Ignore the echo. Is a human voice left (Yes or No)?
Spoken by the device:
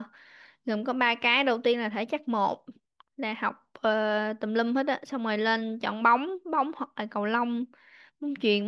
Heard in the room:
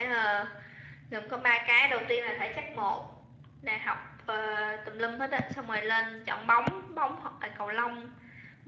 No